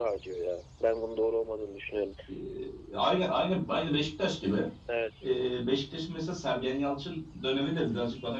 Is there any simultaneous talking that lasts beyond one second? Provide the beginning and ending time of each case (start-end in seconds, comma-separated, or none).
none